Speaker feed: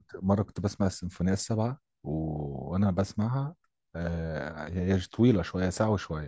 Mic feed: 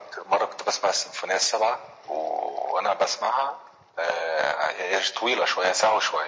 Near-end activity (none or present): none